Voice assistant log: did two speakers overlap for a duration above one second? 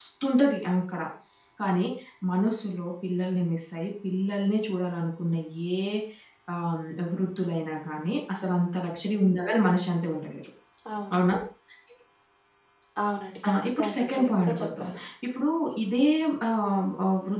Yes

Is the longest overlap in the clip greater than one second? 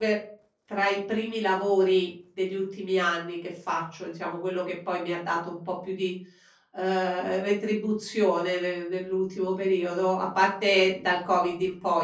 No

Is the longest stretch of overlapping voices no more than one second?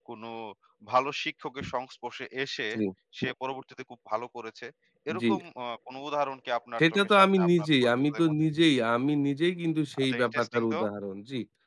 No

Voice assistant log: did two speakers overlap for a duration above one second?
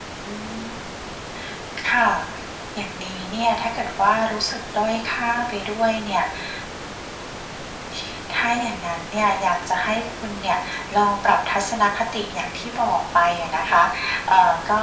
No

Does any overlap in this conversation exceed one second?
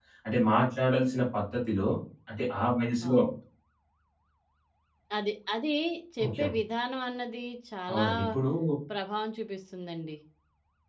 No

